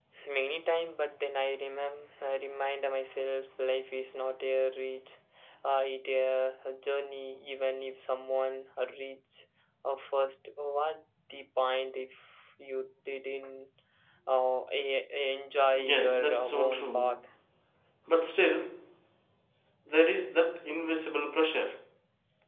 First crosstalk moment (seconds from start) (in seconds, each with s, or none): 15.8 s